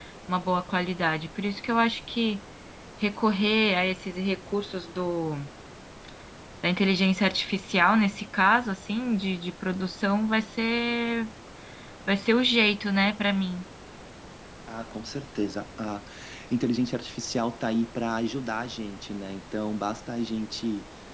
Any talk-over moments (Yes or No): No